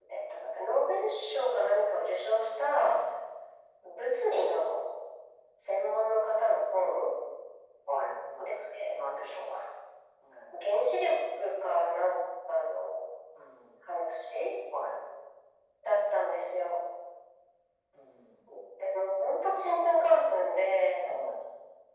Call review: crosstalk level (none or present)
none